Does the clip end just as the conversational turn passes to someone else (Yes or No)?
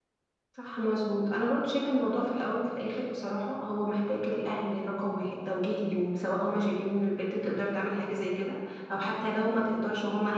No